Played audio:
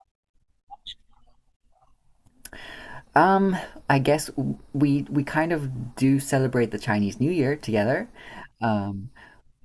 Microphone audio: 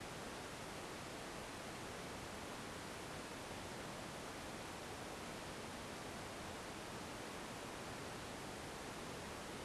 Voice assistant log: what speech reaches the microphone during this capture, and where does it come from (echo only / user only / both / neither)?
neither